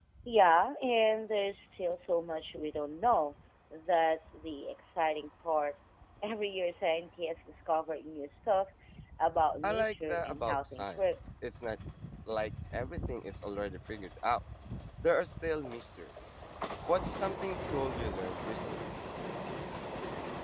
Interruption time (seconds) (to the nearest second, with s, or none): 10 s